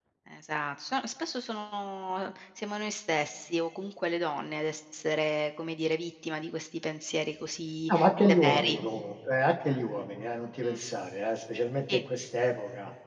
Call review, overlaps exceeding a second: none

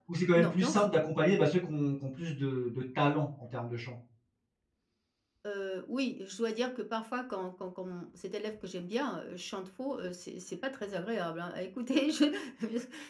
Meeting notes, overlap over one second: none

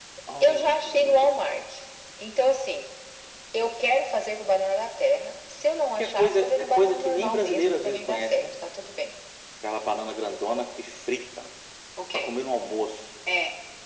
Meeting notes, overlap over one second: present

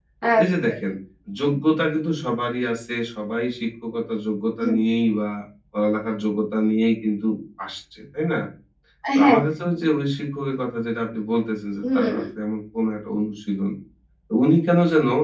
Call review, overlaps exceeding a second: none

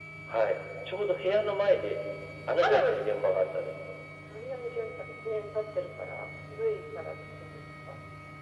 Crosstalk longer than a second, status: none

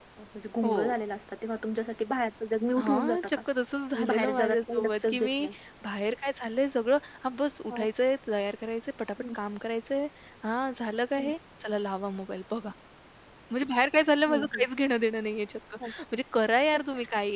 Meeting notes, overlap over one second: present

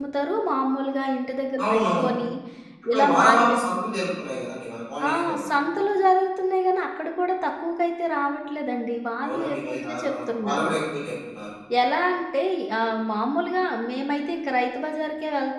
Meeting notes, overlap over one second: present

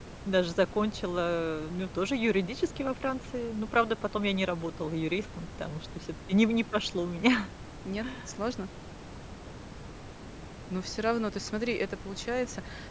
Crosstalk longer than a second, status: none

